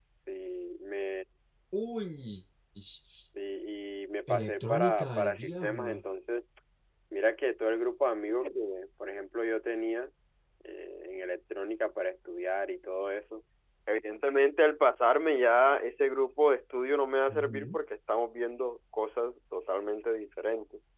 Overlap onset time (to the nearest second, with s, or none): 4 s